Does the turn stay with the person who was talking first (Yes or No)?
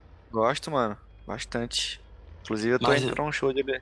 Yes